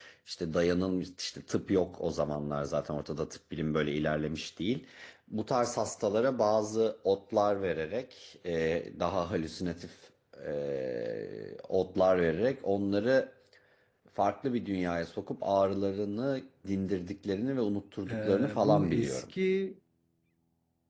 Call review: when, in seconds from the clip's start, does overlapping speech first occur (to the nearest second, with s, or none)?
18 s